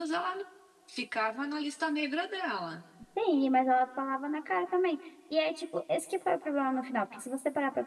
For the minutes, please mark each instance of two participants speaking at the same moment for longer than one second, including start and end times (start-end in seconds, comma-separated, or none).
none